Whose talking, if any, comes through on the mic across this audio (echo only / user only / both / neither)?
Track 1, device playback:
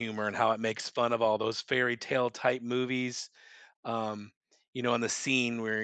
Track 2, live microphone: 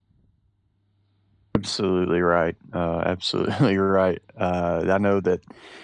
user only